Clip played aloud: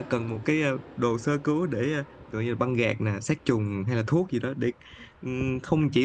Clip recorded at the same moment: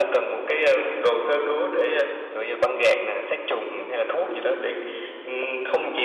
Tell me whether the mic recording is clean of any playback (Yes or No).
No